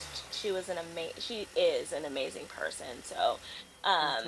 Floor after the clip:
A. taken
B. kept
B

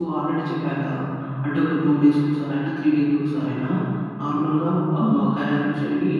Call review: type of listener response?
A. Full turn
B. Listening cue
B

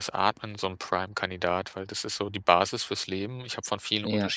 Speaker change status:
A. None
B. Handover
A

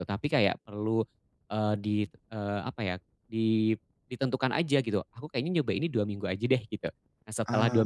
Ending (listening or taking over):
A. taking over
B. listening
B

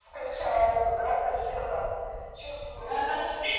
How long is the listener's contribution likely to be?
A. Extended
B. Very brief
A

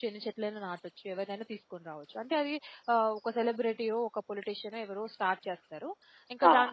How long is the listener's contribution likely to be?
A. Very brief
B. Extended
A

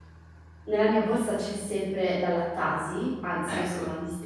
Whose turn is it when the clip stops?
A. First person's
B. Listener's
A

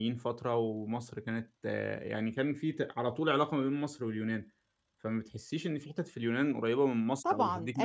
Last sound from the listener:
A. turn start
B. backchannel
A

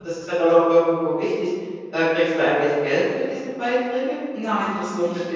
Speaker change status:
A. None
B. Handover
B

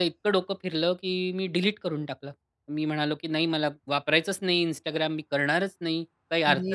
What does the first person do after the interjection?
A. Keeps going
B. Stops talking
A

